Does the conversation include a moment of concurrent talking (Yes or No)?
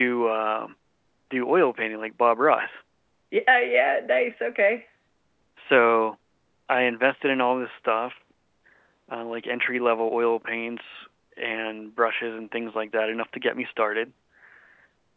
No